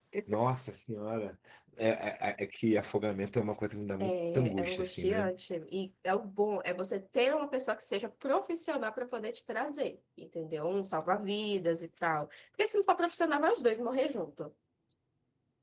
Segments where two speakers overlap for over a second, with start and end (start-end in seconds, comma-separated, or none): 4.0-5.3